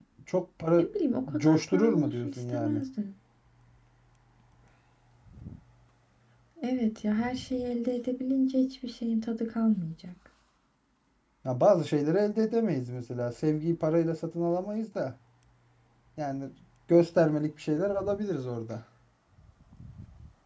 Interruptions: present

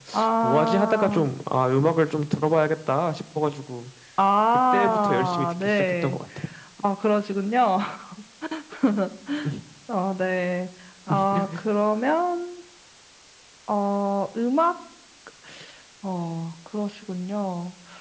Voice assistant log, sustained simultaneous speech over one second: present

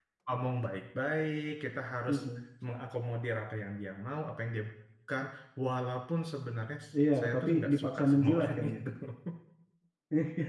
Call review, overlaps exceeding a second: present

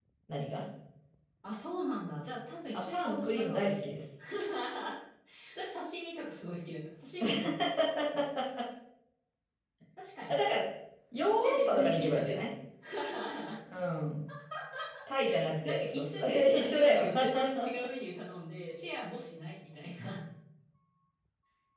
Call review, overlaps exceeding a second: present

